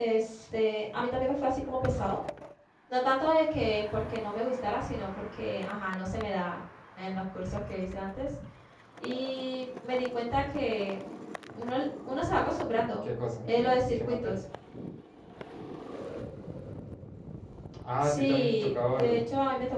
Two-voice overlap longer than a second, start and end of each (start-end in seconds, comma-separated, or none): 18.0-19.2